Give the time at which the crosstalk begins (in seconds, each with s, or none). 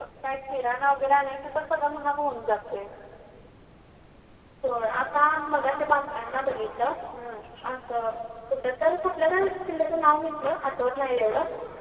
none